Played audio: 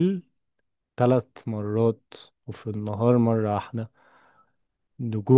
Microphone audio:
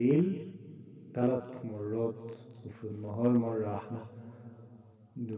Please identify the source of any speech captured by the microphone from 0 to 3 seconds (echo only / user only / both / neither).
echo only